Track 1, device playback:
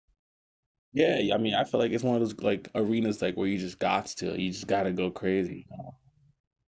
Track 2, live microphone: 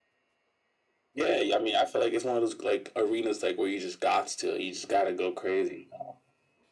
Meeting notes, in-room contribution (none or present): none